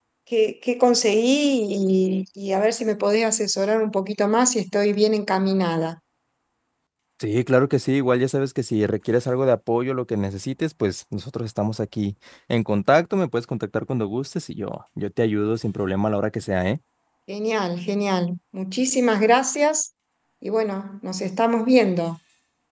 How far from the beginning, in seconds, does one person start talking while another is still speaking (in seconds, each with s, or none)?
none